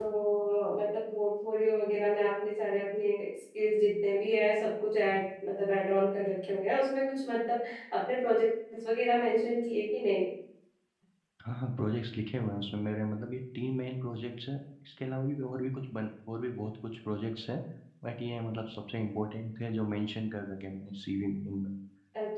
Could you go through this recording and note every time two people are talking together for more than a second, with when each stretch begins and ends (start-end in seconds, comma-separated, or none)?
none